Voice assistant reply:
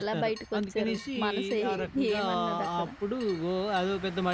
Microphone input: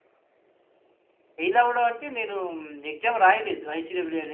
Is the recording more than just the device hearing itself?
Yes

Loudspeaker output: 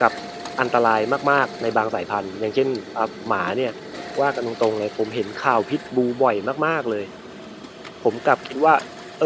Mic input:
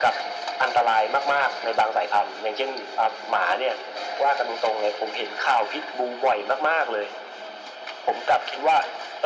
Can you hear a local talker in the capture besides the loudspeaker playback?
No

